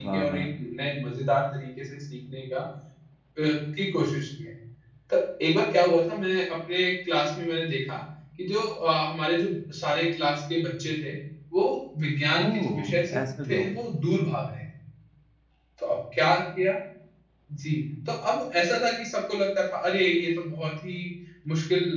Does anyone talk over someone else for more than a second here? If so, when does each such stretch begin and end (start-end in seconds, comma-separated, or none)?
12.4-13.7